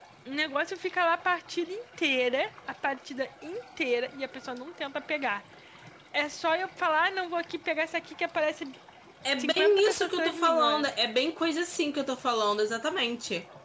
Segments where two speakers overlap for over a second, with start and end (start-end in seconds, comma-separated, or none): 9.4-10.8